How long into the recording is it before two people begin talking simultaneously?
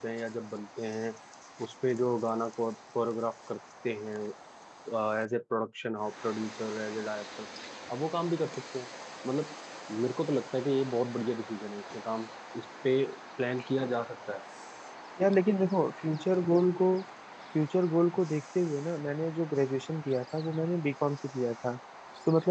none

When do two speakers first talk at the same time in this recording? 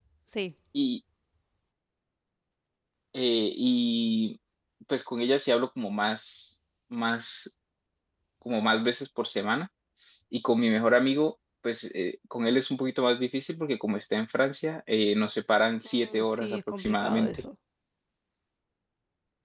16 s

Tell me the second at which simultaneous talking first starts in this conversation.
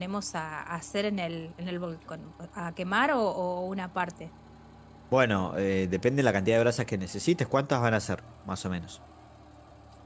none

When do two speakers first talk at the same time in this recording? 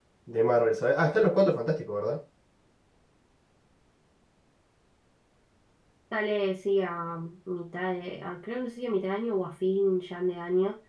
none

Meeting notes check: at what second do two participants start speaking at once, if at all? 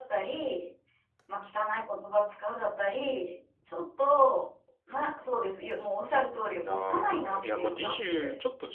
7 s

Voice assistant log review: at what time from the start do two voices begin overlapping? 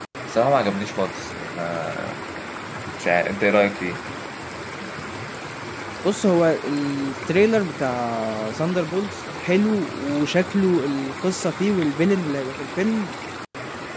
none

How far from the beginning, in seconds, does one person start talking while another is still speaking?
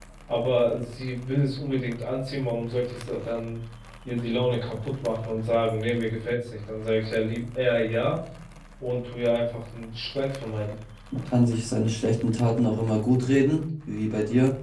none

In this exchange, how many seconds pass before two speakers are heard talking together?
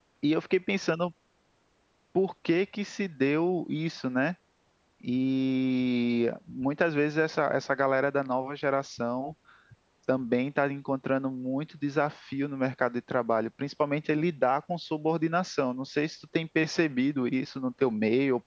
none

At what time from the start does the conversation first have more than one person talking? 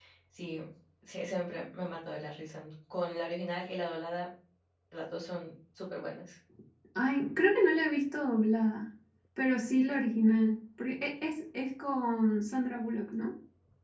none

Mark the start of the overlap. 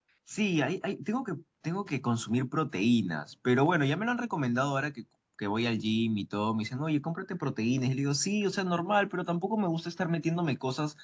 none

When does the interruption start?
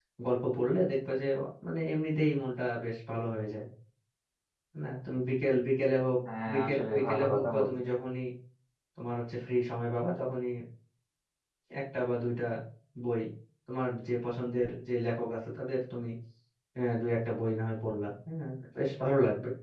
6 s

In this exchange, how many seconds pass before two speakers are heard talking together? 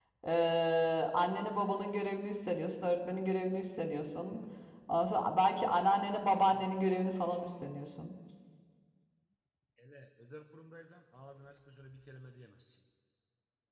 none

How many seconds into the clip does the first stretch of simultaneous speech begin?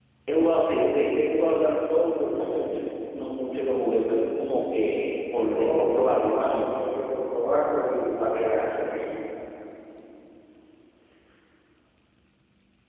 5 s

